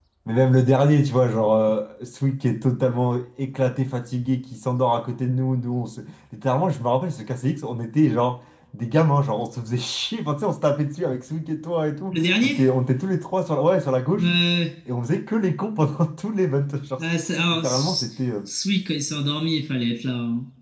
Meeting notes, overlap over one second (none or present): none